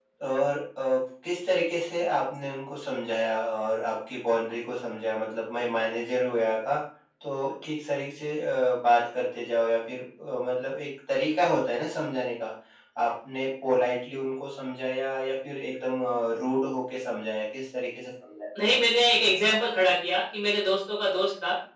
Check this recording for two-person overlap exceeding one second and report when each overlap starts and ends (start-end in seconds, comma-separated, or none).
none